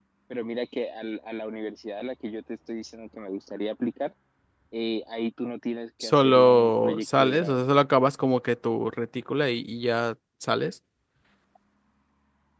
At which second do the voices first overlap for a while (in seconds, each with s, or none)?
6.0 s